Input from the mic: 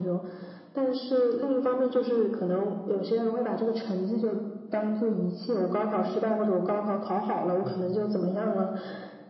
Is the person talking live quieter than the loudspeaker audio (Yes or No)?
Yes